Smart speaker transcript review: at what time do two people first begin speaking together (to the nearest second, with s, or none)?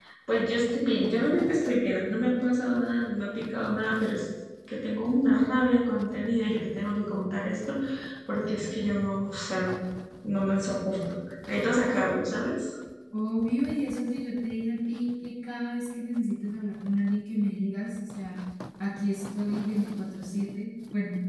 none